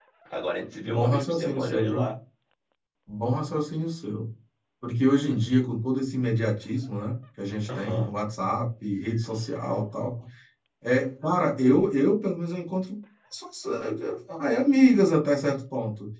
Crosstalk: present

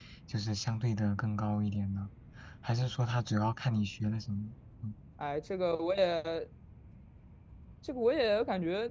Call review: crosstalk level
none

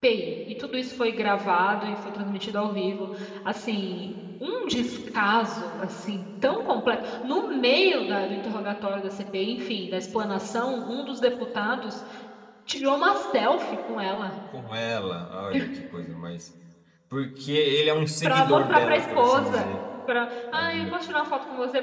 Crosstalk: present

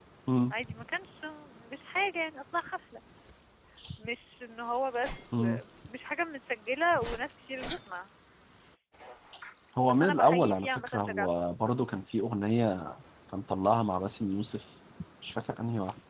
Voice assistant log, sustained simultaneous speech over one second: present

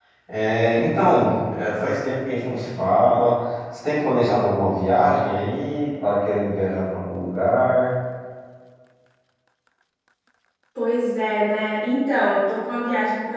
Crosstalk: none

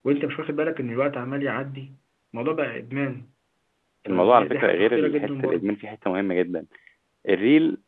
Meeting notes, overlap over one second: present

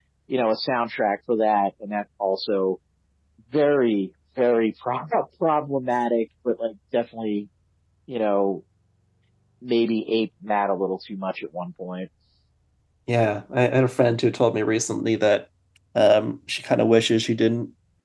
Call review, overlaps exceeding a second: none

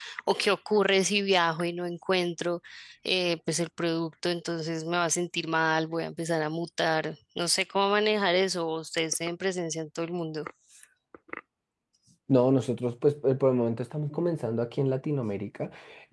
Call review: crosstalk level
none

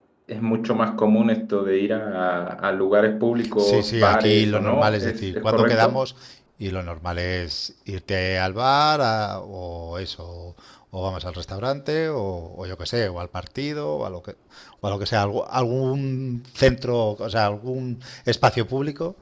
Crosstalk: present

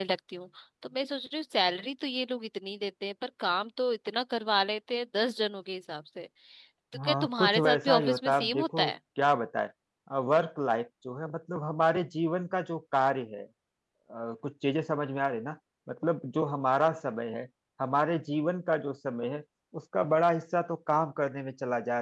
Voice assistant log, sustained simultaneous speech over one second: present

